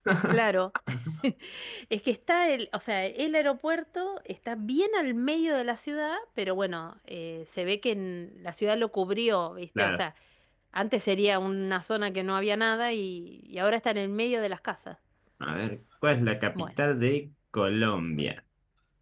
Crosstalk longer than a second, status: none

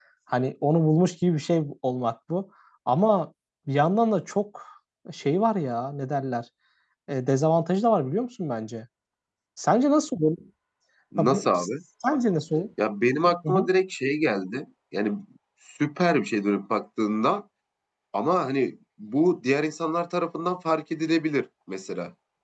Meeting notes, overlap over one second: none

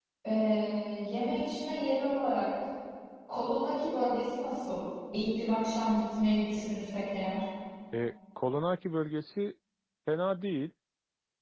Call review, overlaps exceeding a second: none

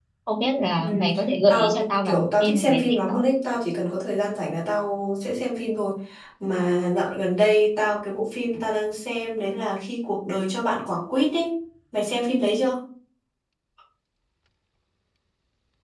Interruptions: present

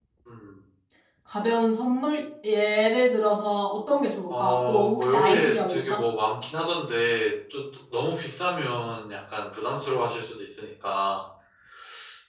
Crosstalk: present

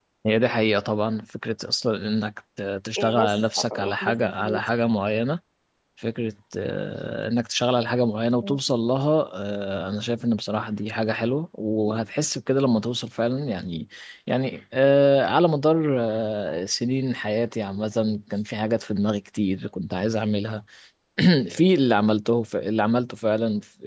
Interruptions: present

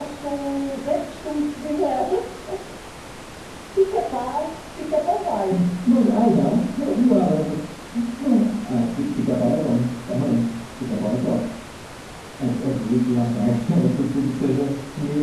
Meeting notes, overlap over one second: none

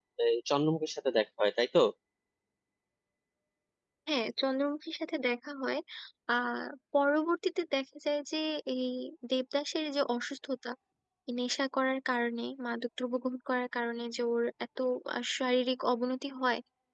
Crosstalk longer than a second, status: none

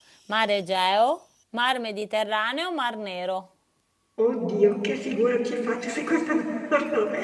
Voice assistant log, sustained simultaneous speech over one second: none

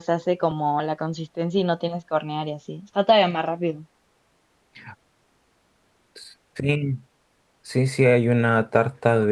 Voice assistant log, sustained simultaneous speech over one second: none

